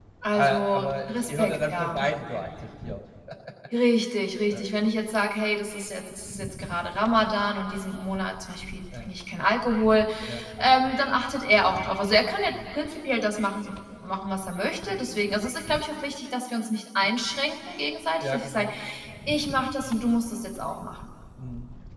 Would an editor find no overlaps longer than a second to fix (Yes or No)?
No